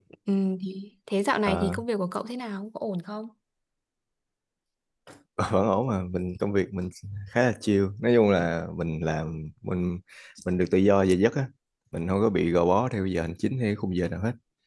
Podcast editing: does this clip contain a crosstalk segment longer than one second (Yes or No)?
No